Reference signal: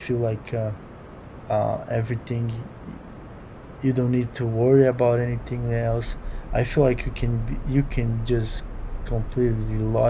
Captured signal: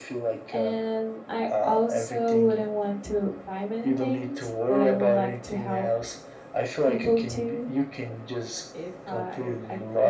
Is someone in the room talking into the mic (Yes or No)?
Yes